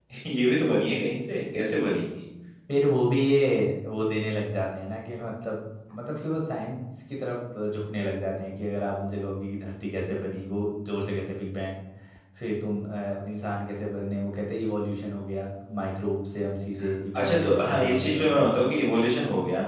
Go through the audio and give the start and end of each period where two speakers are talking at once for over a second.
17.2-18.6

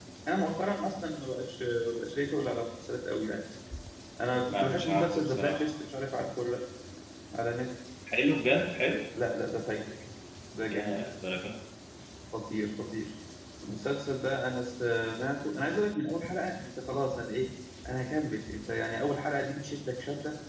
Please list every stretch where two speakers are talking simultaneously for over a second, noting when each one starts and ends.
4.3-5.7

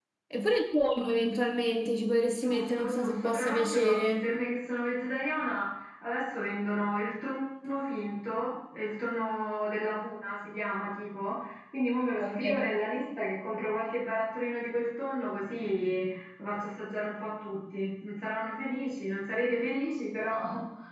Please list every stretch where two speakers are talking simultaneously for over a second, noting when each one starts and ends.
2.4-4.3

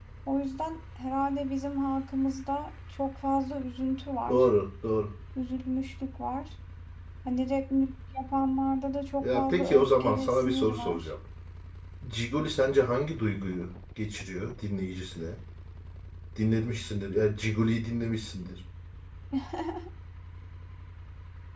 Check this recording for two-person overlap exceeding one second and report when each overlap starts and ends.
9.2-11.1

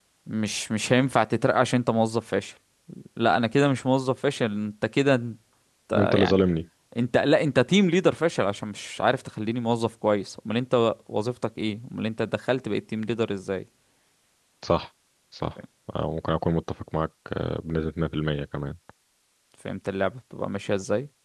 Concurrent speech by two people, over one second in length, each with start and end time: none

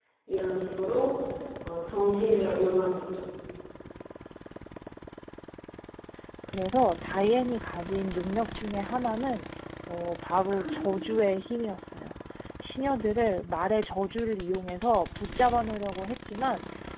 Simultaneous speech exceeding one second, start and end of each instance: none

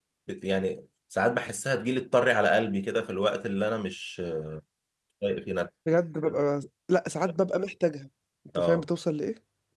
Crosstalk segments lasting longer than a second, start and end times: none

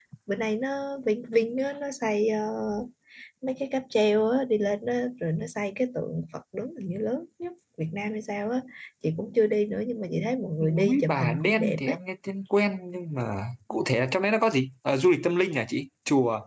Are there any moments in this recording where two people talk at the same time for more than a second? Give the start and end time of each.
10.6-12.0

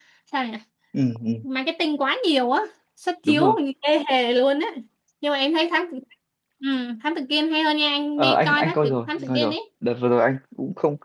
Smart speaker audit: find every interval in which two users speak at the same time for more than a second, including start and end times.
8.2-9.6

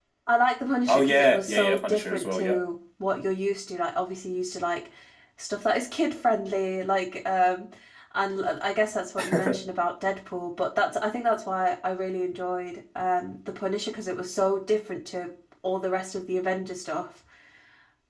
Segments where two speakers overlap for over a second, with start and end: 0.9-2.6

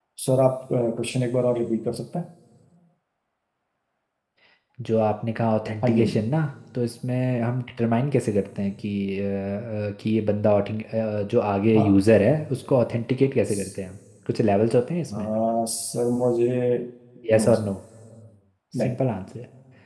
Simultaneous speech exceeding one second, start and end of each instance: none

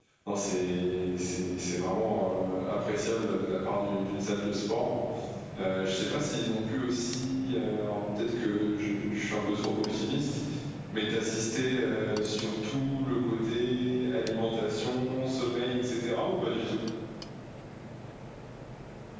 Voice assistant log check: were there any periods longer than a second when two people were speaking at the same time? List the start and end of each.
none

